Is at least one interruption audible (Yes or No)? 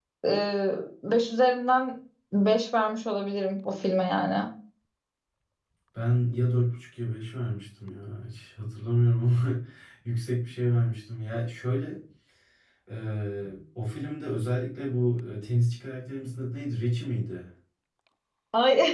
No